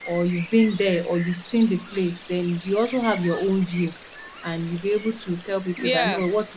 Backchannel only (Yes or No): Yes